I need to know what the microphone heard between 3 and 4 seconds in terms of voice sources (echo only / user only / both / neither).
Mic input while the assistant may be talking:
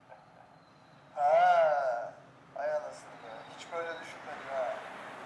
echo only